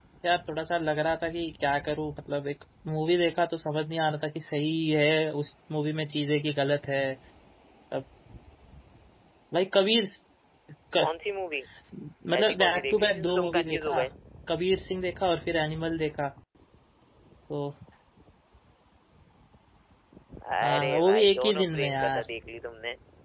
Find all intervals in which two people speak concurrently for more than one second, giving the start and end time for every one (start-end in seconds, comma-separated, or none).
12.4-14.0, 20.6-22.2